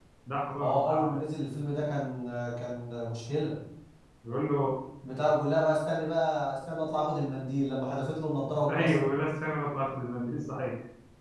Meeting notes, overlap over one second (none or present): none